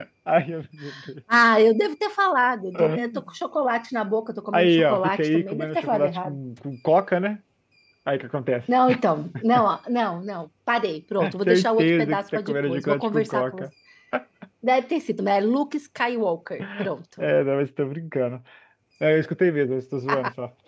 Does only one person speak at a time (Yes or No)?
No